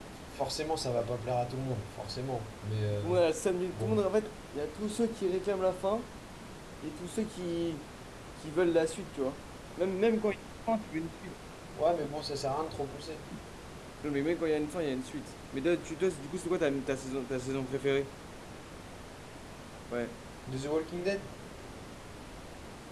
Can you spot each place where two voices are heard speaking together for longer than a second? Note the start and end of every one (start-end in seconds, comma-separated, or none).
none